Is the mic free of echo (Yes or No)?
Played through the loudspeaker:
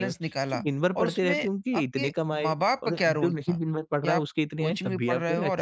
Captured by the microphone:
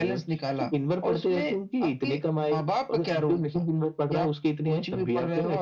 No